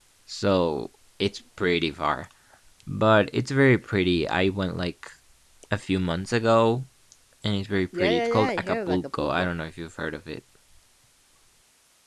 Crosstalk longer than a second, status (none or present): present